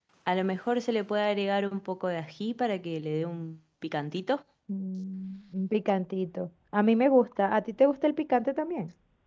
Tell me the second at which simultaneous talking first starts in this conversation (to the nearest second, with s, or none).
none